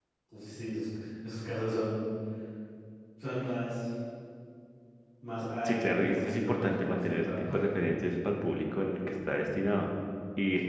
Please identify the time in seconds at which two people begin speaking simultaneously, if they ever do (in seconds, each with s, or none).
5.7 s